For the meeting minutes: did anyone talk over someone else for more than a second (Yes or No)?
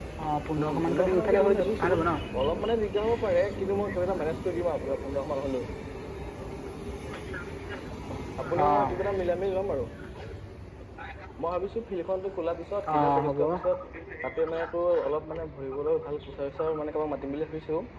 Yes